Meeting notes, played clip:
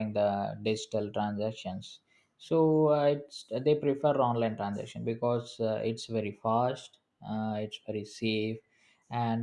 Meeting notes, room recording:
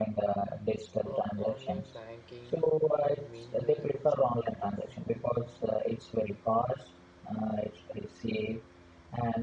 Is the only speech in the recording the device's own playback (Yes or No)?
No